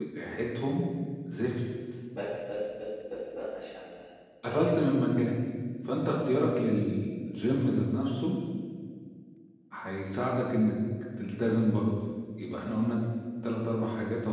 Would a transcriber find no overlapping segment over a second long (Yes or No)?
Yes